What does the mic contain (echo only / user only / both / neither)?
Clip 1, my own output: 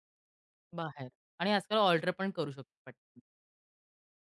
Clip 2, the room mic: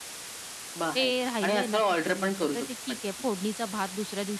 both